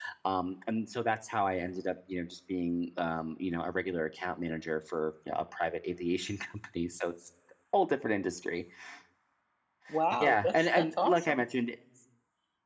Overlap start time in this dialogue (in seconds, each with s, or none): 10.2 s